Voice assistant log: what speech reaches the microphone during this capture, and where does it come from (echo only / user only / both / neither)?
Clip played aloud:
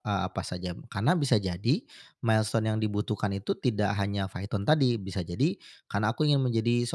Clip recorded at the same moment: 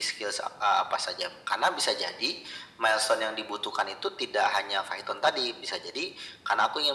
echo only